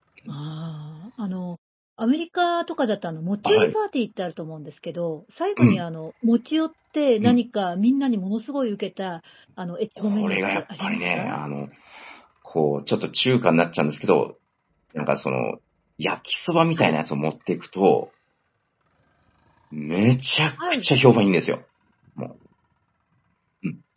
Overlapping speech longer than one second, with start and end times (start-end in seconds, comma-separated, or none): 10.0-11.4